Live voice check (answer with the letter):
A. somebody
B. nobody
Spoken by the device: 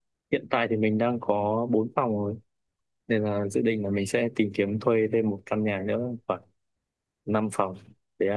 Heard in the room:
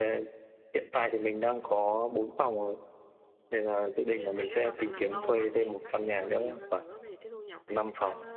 A